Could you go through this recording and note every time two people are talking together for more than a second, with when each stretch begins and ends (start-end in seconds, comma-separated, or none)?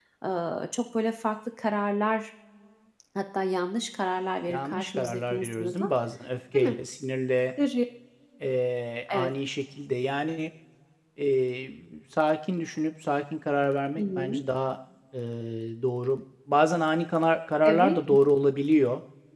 4.5-5.8